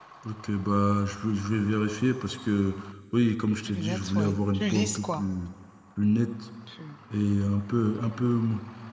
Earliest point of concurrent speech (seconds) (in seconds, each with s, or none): 3.6 s